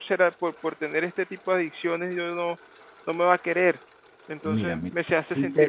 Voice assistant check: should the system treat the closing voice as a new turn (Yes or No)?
Yes